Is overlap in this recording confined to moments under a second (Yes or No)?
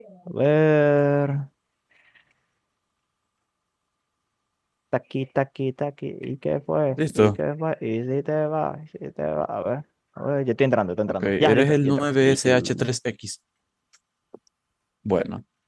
No